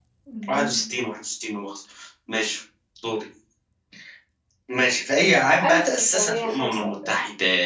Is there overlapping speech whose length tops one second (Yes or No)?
Yes